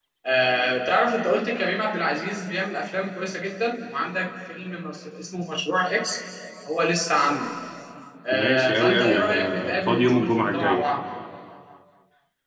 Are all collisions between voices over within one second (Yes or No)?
No